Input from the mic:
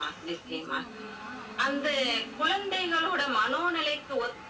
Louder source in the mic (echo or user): echo